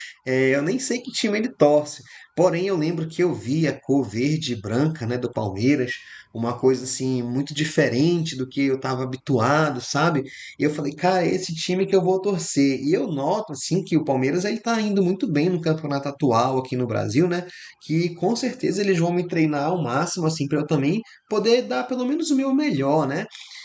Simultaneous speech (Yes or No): No